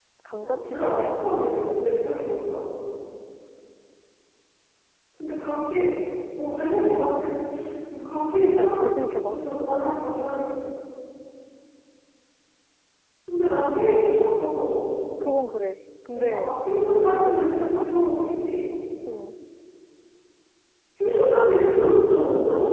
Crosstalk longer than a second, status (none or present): present